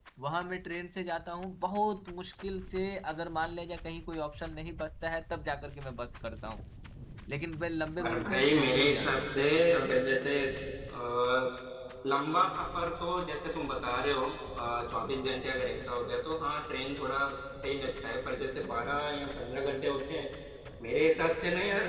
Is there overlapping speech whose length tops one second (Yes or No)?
Yes